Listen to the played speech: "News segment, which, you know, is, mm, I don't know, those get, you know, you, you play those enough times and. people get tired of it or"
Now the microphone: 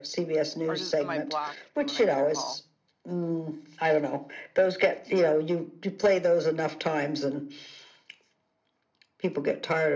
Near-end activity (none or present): present